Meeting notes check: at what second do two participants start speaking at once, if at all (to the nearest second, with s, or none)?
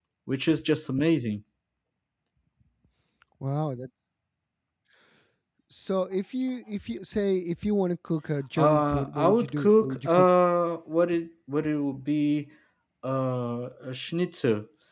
9 s